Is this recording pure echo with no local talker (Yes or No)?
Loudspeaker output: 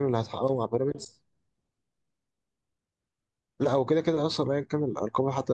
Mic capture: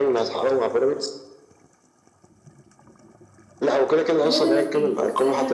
No